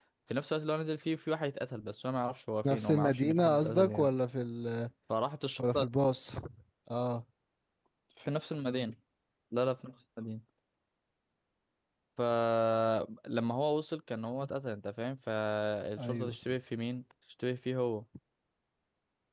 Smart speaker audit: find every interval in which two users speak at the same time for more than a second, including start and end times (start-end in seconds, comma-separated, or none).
2.6-4.1